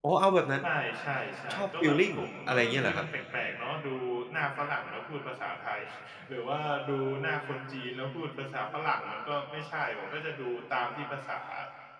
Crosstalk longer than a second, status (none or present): present